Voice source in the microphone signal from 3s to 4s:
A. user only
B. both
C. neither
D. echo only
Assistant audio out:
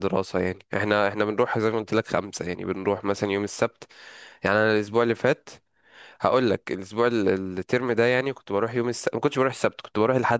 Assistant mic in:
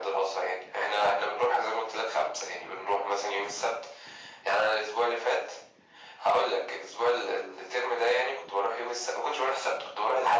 D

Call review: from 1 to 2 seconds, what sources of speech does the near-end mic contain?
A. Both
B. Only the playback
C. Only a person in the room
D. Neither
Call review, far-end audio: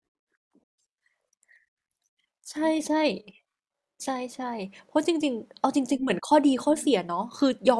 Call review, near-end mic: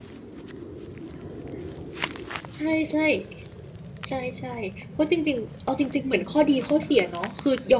D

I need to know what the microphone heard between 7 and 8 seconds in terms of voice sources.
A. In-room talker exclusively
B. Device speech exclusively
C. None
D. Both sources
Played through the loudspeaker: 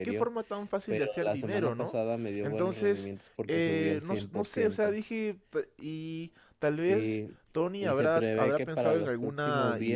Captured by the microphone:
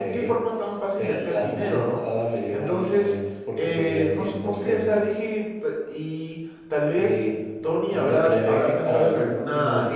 B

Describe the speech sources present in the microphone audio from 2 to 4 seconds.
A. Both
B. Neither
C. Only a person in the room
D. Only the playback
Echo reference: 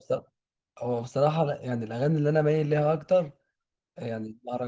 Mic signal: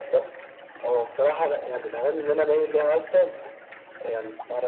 D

